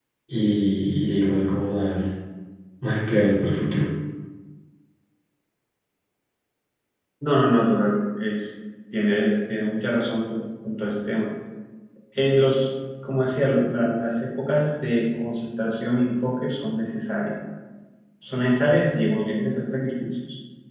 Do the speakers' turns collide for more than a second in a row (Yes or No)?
No